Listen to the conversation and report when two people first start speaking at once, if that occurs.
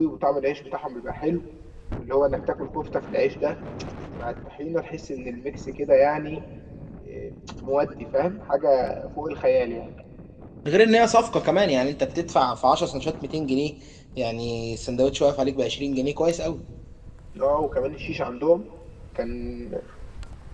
none

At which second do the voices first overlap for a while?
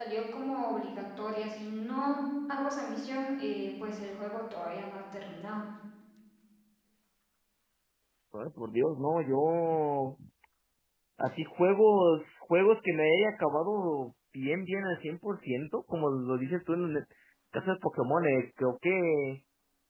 none

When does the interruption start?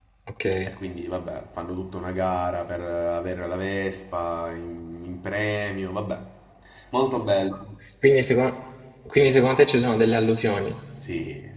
none

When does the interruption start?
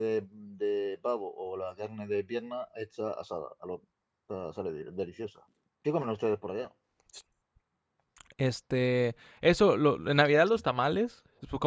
none

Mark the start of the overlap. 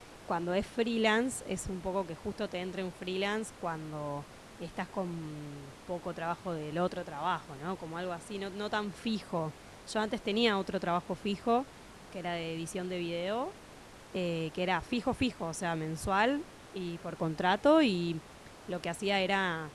none

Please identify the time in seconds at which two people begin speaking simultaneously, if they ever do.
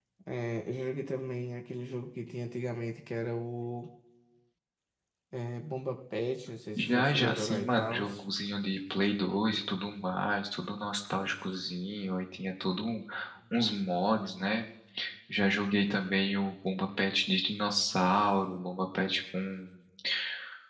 7 s

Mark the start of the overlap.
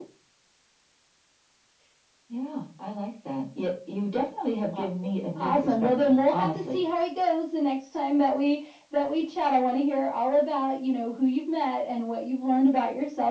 5 s

